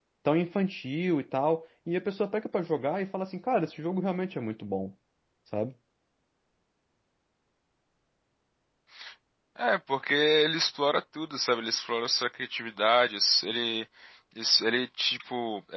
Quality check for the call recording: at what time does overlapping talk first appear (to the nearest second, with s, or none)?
none